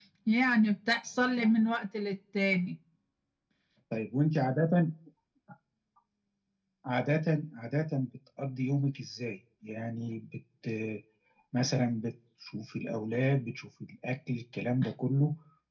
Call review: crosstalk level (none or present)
none